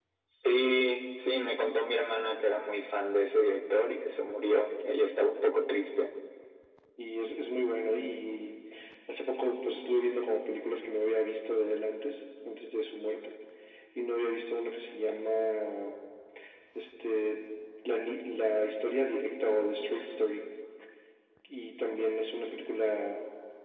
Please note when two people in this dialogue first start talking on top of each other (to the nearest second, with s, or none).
none